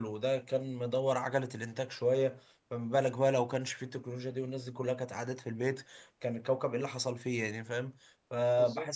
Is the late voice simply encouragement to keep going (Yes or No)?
Yes